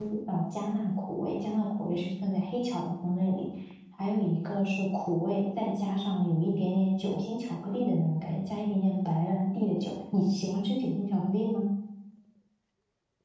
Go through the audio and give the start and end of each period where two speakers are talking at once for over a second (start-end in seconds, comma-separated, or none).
none